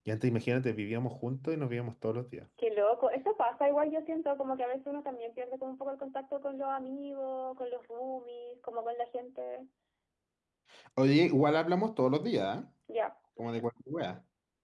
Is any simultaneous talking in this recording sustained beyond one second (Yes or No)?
No